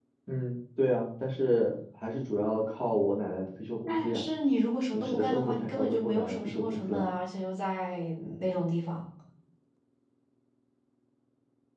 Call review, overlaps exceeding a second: present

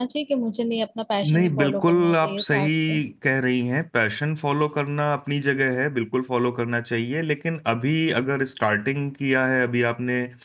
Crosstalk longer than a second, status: present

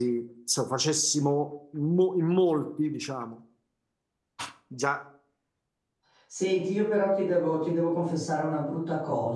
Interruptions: none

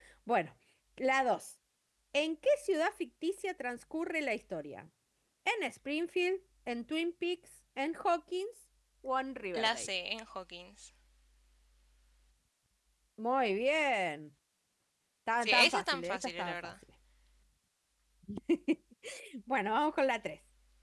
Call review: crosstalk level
present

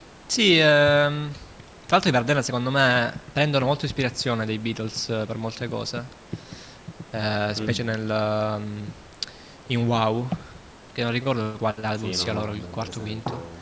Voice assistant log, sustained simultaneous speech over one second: present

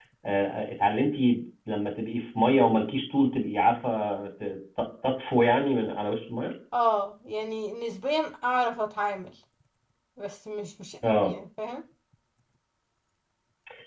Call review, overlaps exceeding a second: none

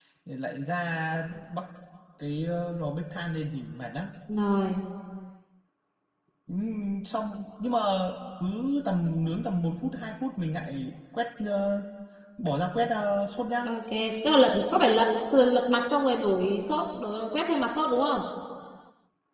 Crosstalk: none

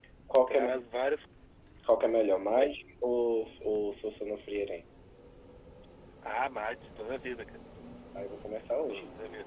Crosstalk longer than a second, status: none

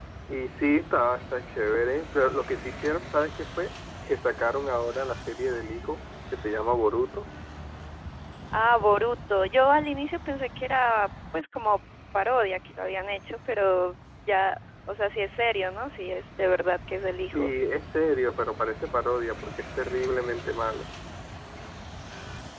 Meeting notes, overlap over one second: none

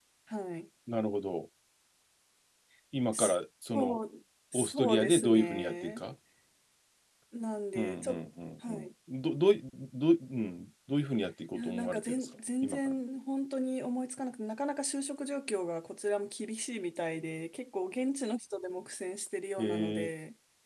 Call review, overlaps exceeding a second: present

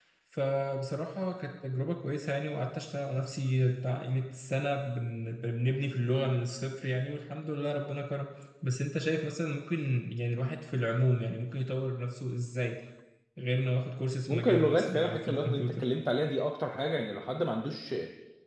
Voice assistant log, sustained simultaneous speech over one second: present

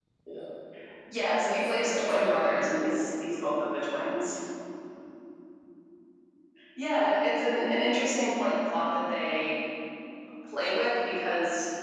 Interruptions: present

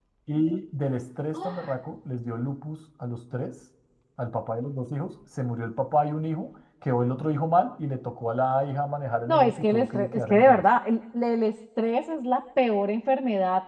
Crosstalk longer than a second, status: present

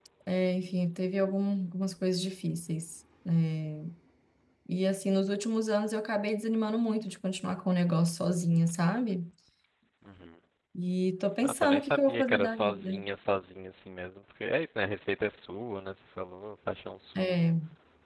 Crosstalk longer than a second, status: present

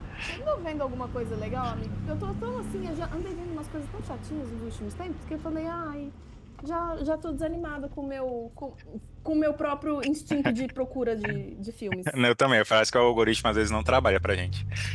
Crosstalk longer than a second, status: none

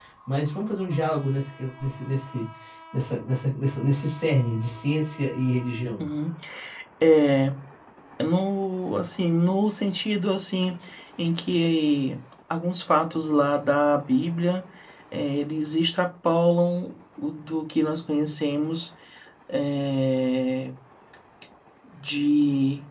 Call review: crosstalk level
none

